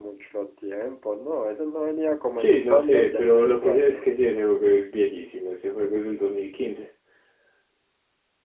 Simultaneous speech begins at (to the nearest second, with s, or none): 2 s